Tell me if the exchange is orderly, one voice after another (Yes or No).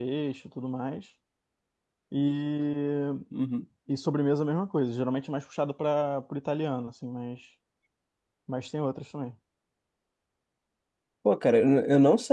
Yes